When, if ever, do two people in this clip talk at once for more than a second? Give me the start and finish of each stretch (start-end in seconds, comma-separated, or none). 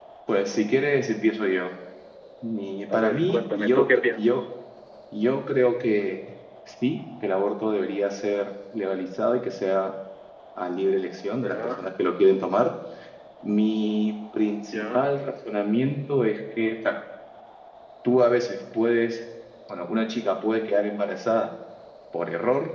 2.9-4.3